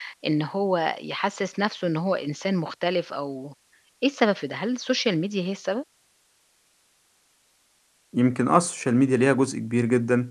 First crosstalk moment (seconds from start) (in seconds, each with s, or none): none